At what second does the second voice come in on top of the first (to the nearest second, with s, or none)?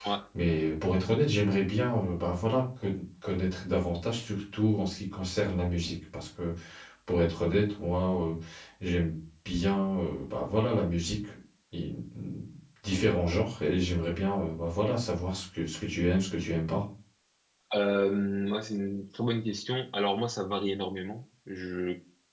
none